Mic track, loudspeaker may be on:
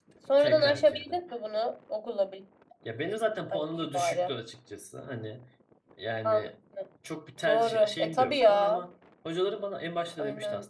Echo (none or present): present